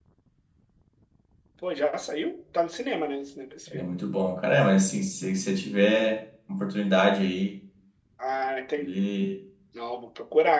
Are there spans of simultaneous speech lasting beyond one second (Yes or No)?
No